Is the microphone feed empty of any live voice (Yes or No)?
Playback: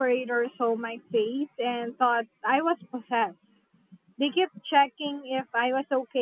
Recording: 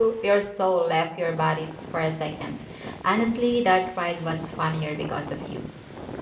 No